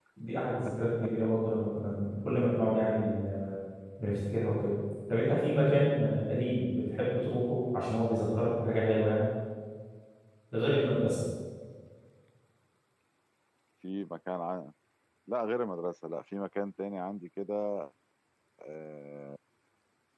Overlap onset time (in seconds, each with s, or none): none